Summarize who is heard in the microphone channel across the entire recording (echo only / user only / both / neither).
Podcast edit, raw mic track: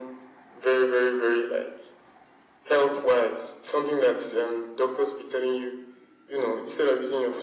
echo only